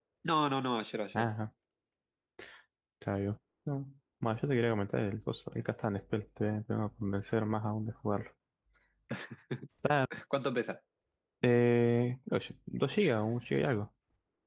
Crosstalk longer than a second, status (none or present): none